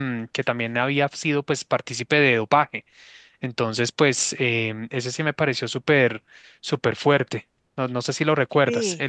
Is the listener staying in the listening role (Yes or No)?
No